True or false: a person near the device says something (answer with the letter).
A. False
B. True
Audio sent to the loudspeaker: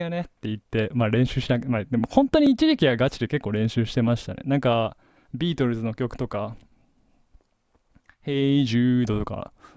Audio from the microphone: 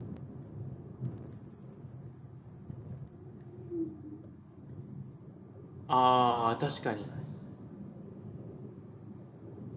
B